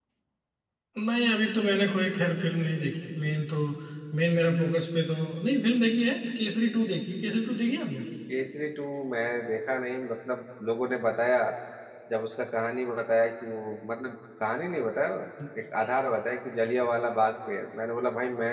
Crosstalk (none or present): none